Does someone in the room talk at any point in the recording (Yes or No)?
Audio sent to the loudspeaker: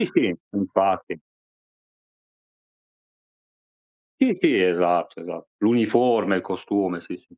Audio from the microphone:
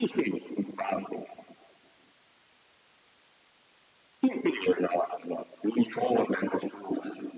No